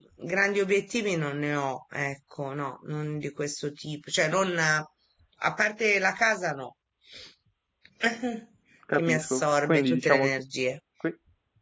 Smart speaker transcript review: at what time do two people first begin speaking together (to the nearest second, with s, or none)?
9 s